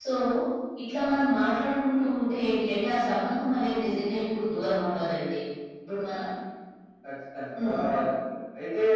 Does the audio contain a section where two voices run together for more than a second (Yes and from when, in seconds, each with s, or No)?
No